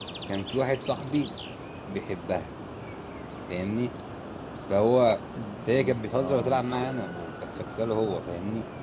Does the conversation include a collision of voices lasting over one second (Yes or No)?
Yes